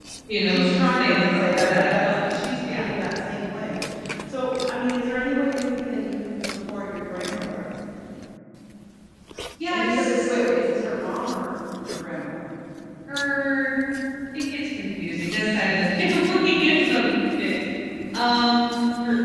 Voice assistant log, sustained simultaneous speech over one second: present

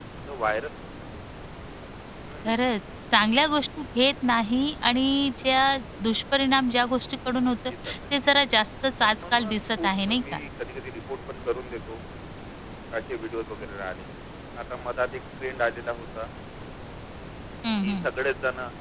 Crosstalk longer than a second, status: present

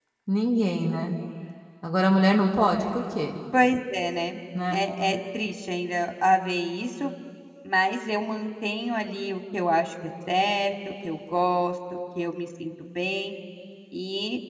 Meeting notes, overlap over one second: none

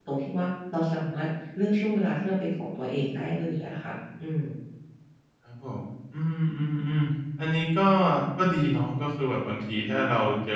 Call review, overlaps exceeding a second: none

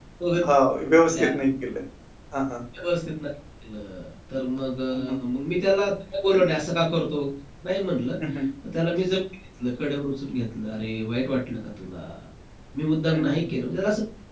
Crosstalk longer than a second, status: none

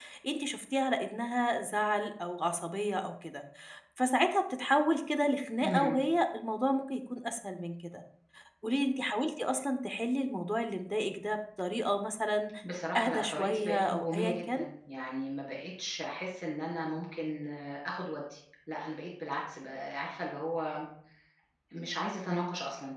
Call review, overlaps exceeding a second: present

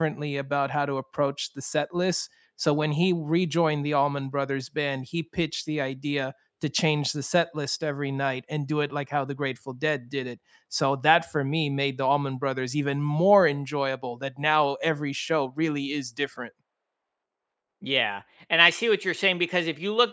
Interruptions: none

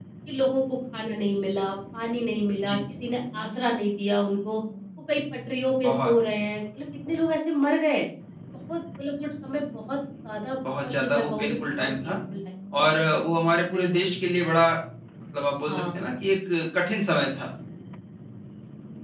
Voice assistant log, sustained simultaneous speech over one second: present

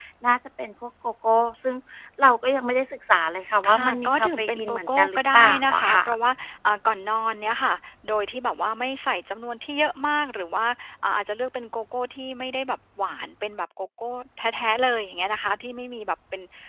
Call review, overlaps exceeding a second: present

